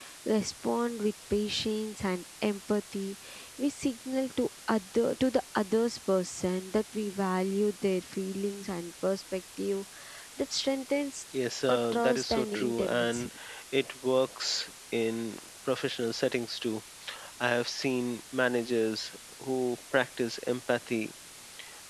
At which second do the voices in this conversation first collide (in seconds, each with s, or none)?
11.7 s